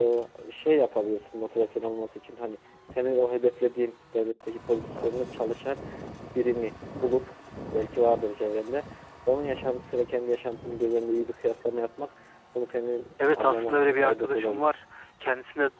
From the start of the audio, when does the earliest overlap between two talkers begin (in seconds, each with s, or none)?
13.2 s